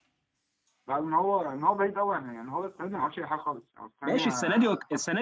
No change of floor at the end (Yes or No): No